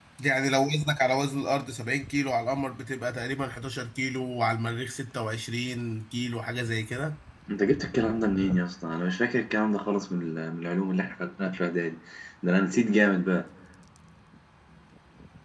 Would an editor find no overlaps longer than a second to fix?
Yes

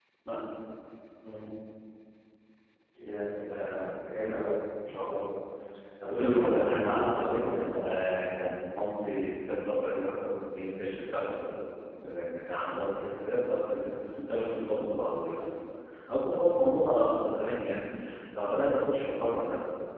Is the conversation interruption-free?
No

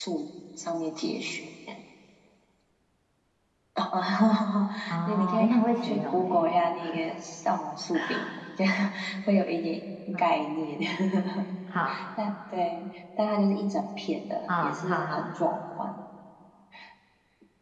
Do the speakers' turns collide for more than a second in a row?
Yes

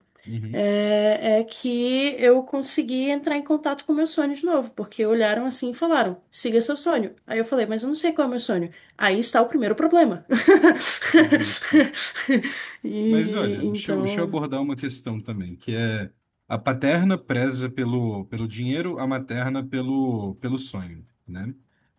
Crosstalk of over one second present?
Yes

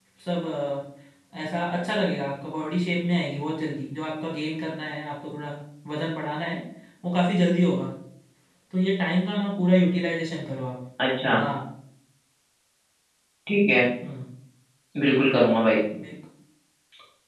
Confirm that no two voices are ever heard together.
Yes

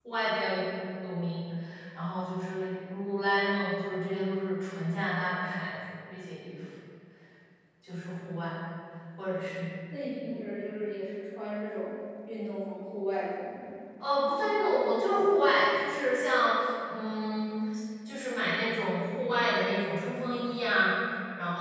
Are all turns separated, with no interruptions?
Yes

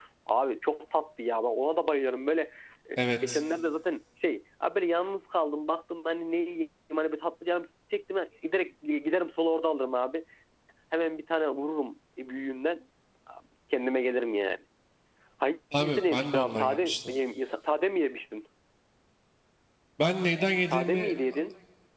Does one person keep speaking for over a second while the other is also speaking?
Yes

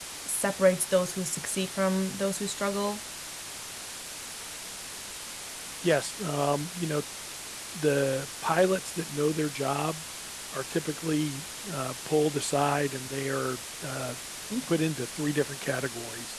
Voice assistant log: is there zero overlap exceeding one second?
Yes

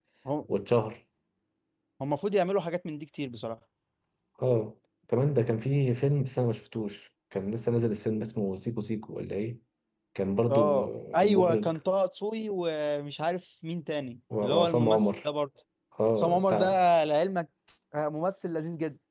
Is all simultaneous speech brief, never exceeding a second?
No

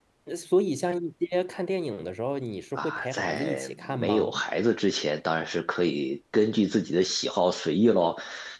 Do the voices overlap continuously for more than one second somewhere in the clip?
Yes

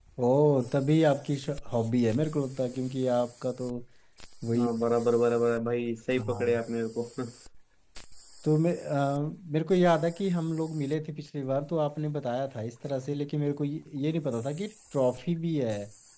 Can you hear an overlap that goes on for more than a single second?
No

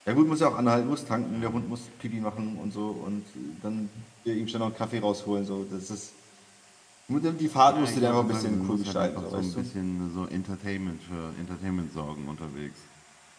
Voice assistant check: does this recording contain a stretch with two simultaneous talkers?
Yes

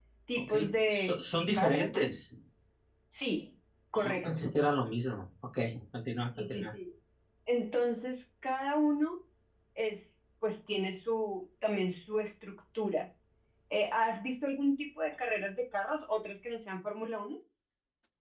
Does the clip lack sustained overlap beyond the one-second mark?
No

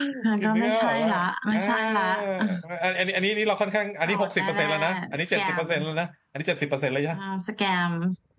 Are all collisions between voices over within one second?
No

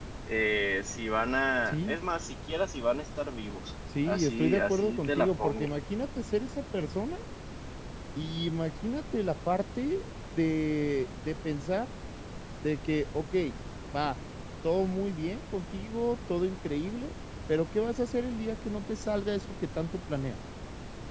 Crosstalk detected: Yes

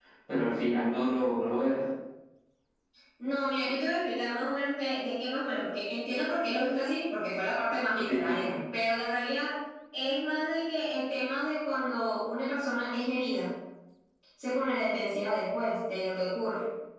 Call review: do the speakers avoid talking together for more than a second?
Yes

